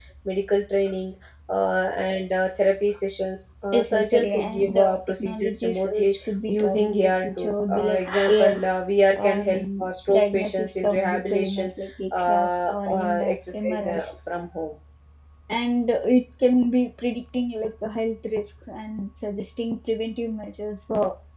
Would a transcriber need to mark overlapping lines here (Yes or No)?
Yes